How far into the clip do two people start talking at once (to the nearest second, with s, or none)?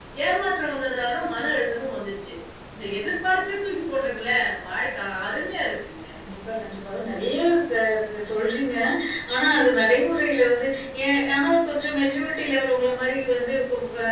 none